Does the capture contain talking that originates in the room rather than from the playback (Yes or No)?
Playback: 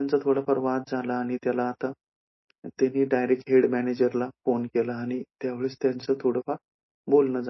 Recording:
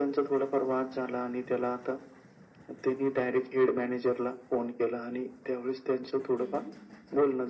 Yes